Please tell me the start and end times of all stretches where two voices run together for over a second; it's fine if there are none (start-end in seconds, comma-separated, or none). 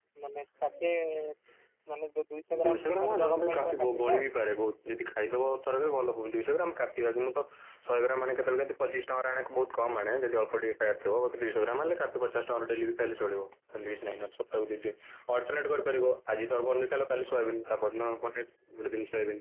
2.6-4.2